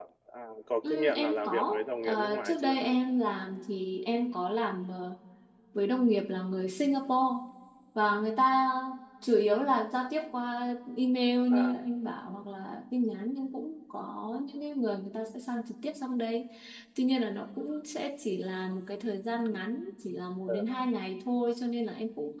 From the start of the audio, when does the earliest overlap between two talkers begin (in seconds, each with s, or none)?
0.9 s